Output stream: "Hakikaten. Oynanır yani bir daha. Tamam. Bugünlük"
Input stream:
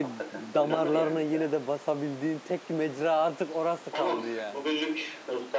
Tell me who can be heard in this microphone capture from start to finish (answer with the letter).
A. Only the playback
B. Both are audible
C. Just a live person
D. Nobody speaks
B